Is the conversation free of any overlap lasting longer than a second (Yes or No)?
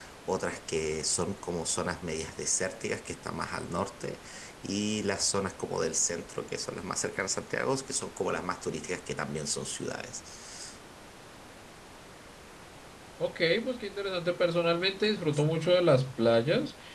Yes